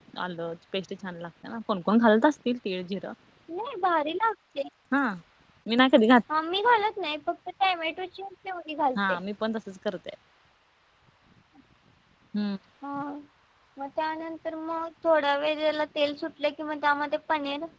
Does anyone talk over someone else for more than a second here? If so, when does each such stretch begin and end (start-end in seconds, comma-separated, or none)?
none